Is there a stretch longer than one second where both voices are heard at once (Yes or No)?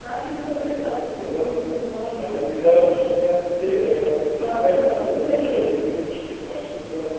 Yes